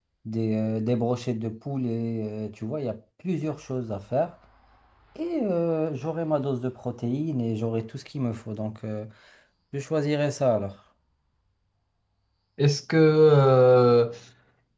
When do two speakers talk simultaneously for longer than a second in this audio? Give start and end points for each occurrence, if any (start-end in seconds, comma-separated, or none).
none